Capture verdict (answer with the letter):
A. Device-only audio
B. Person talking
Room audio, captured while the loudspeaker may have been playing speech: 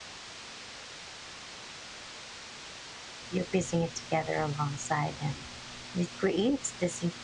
B